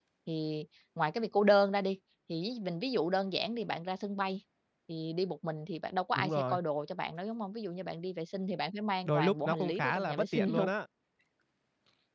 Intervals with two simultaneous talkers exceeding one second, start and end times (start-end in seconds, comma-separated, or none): 9.1-10.7